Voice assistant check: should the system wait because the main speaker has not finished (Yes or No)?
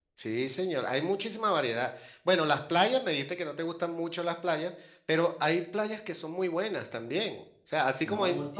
Yes